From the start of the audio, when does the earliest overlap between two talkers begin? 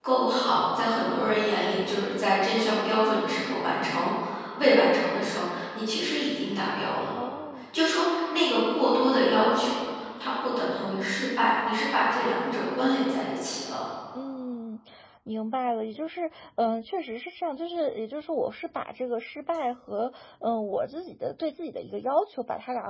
none

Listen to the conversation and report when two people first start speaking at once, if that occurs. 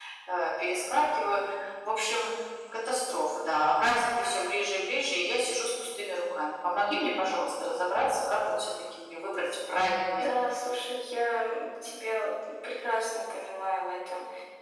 none

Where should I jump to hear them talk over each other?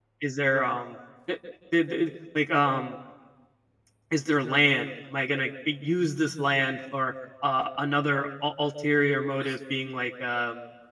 none

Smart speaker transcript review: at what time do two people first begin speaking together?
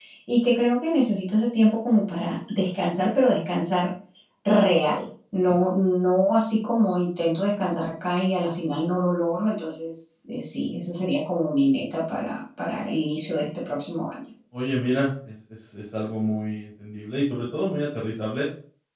none

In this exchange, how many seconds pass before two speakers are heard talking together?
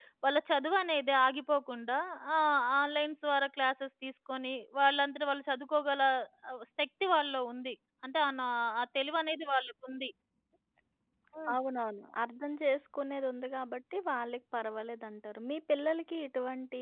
none

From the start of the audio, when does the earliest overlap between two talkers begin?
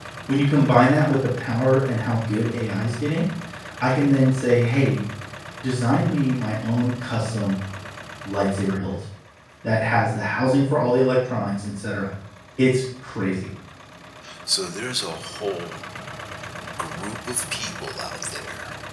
none

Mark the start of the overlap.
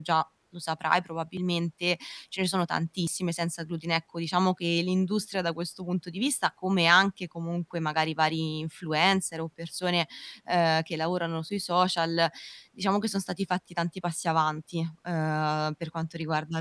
none

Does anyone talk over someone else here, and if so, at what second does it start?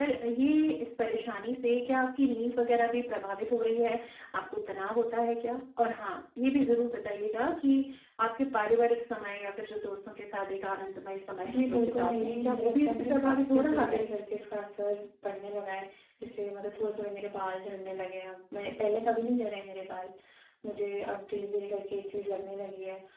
11.4 s

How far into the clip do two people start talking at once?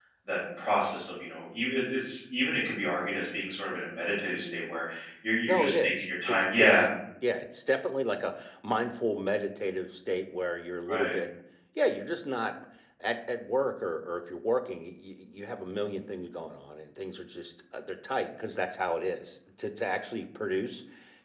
5.5 s

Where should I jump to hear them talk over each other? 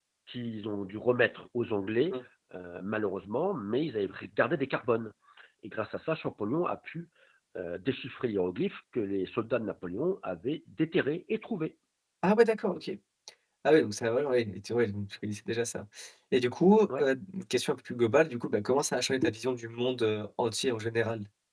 none

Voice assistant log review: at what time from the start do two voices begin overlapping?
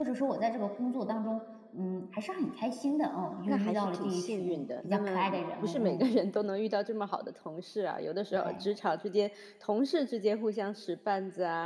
3.5 s

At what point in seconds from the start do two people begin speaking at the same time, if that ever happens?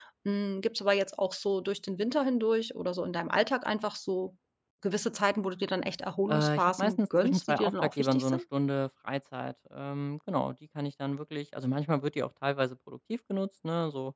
6.3 s

